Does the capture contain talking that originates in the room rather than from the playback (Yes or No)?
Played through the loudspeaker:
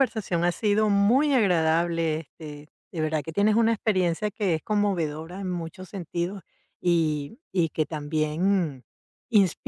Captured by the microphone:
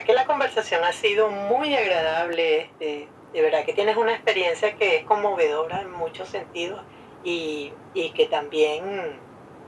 No